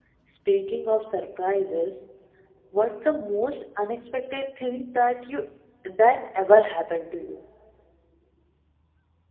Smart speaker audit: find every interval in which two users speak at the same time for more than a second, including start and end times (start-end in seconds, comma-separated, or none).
none